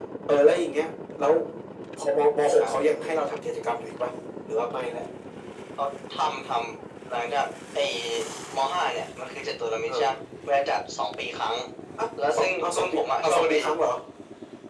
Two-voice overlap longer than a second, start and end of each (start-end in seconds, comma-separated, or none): 12.3-13.6